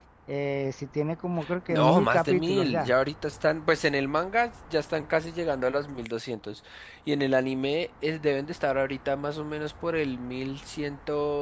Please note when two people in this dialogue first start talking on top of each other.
1.7 s

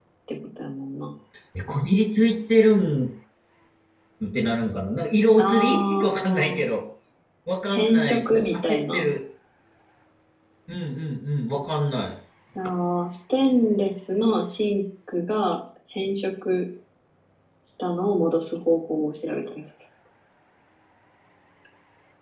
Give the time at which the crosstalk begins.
5.4 s

